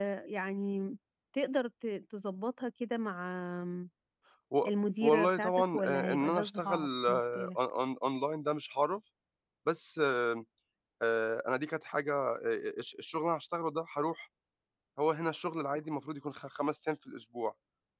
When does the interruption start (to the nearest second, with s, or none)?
5 s